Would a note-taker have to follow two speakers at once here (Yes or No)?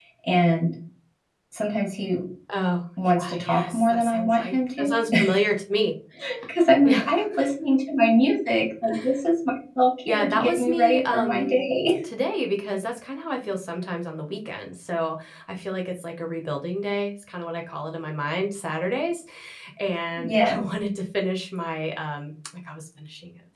Yes